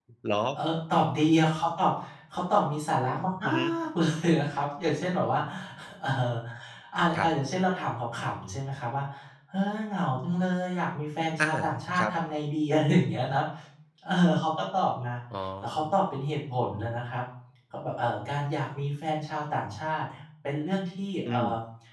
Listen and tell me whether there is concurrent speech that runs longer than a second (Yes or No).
No